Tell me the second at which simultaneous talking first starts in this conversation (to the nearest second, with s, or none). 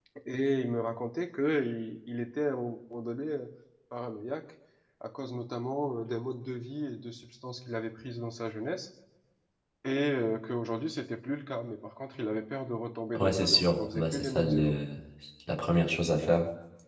13 s